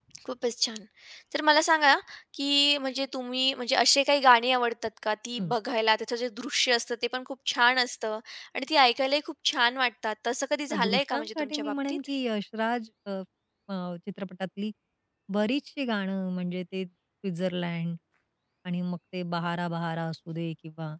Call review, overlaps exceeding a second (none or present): present